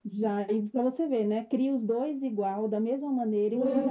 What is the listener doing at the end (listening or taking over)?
taking over